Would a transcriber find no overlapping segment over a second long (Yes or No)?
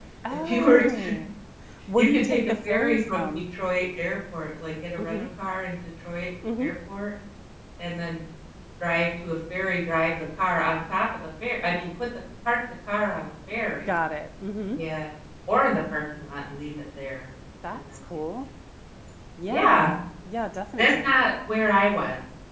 No